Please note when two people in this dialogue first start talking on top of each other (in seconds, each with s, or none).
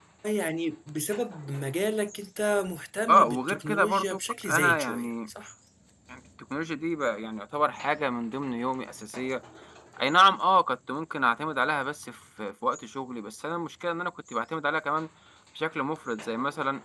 3.1 s